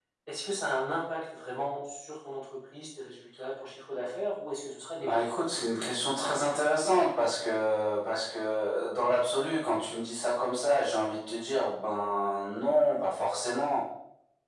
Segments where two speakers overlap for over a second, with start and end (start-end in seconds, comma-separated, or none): none